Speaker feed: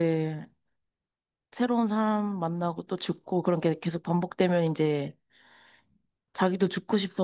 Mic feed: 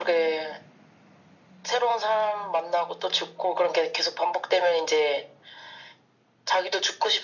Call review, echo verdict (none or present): present